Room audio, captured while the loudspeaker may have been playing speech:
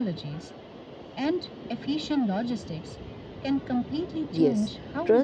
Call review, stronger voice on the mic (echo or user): user